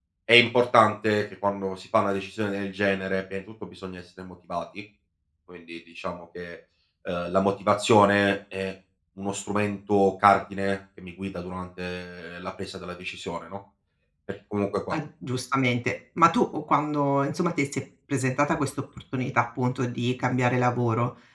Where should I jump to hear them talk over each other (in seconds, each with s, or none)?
none